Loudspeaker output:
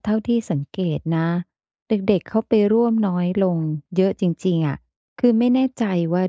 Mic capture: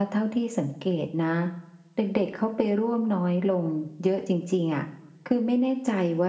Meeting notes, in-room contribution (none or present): none